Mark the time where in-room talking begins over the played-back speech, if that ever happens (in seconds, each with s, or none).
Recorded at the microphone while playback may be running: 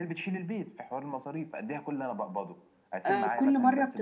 3.0 s